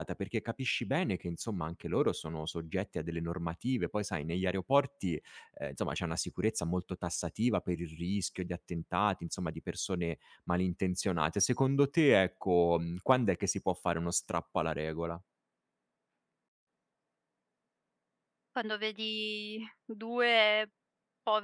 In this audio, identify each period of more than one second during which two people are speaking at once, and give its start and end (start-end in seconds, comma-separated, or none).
none